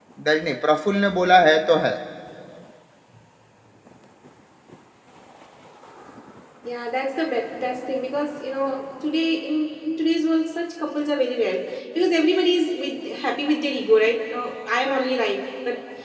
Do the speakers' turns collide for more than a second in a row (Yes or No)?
No